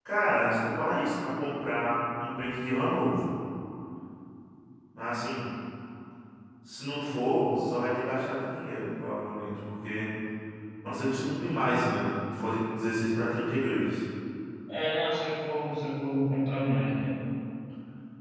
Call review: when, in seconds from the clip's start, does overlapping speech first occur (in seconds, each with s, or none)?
none